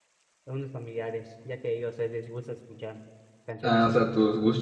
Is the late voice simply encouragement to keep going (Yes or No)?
No